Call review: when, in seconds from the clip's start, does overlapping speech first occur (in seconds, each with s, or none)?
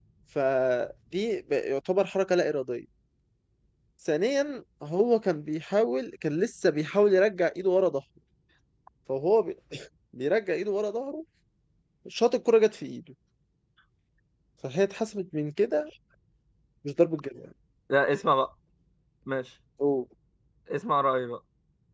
none